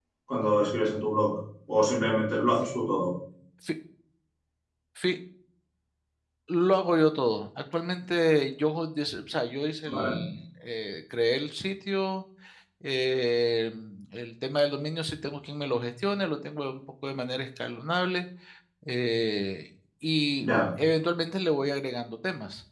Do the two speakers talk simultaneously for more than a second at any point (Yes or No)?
No